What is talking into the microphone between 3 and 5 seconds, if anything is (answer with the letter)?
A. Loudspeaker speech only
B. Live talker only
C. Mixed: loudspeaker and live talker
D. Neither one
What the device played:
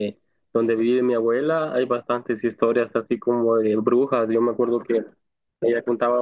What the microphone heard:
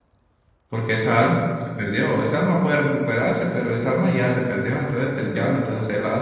B